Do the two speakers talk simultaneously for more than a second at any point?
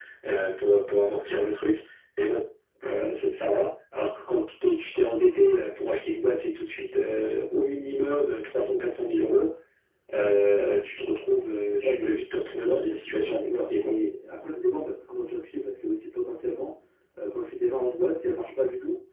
Yes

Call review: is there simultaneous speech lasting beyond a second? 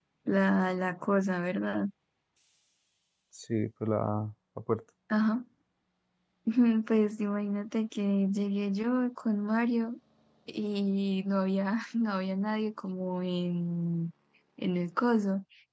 No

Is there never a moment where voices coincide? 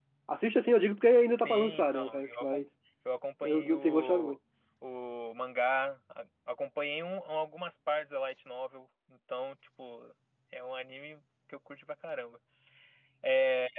No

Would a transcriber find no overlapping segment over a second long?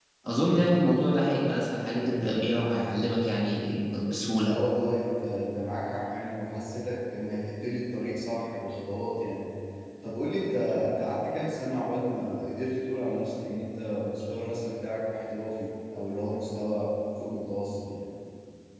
Yes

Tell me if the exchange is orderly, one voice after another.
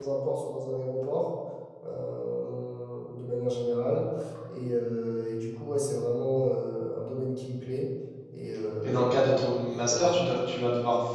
No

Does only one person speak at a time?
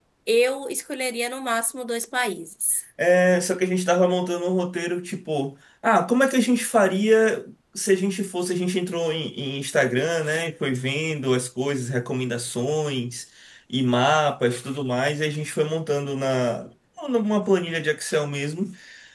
Yes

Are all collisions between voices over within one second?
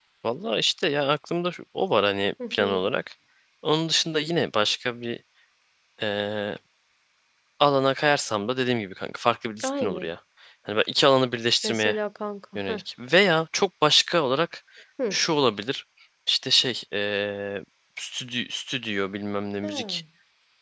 Yes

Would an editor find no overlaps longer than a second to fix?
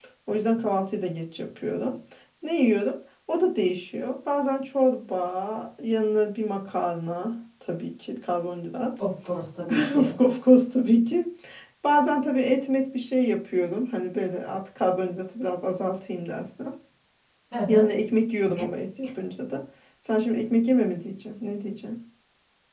Yes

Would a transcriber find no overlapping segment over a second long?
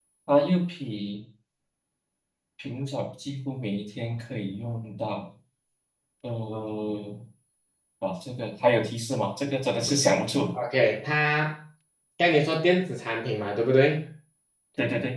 Yes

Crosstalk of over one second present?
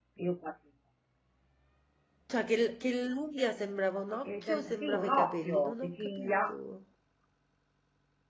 Yes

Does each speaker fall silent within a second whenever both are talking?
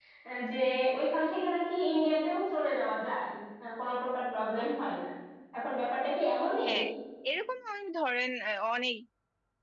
Yes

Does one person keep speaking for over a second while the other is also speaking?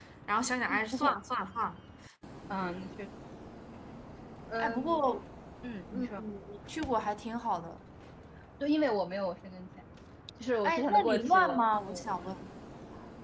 Yes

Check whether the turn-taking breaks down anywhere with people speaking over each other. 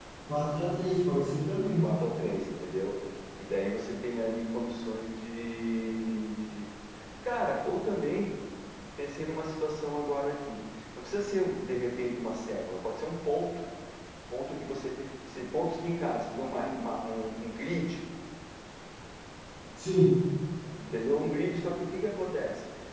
No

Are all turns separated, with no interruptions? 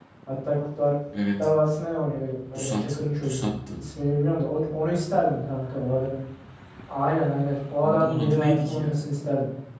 No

